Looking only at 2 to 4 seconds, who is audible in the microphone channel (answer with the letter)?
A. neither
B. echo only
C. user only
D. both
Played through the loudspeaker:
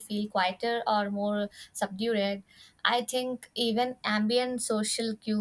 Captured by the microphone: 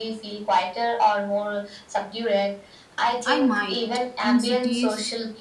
D